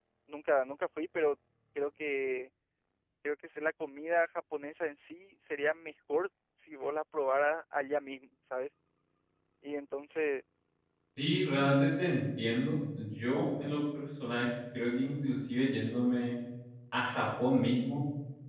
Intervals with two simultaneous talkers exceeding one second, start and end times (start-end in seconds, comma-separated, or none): none